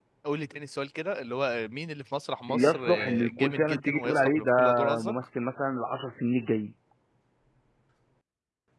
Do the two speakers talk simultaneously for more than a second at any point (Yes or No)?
Yes